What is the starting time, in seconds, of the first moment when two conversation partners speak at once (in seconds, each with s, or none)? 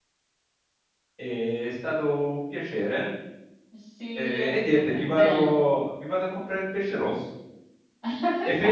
4.2 s